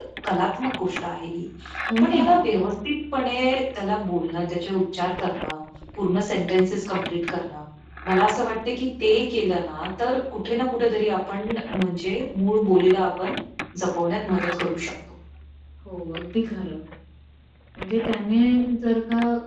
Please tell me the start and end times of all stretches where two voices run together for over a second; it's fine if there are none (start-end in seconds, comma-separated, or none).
none